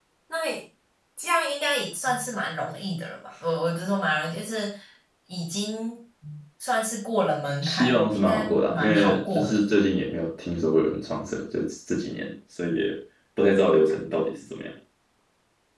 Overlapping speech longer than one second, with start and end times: 7.6-9.6

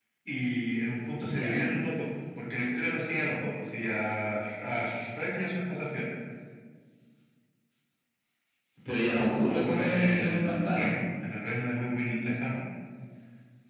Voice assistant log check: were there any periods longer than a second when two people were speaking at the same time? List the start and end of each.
9.1-10.9

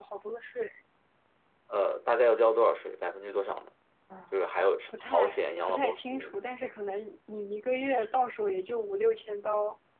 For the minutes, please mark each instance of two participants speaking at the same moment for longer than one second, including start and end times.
4.9-6.3

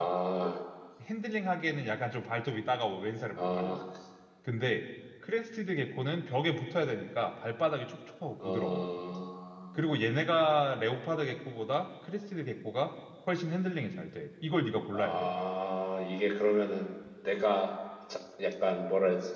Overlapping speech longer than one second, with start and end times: none

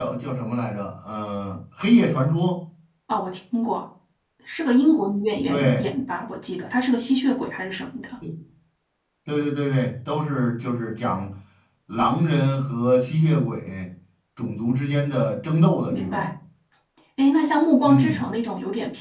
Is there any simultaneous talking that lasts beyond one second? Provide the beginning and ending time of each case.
none

